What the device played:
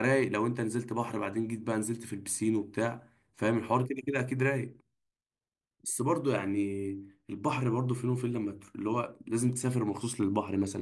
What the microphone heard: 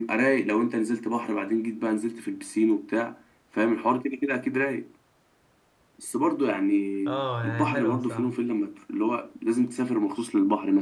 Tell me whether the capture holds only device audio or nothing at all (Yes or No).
No